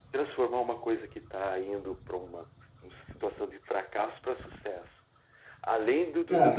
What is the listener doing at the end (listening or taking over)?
taking over